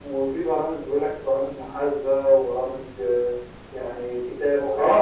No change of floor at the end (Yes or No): No